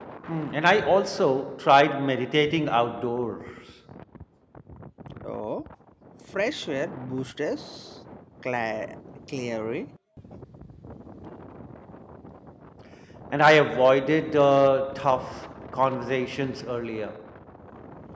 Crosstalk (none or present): none